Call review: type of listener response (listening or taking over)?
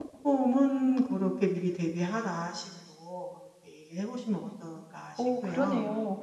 taking over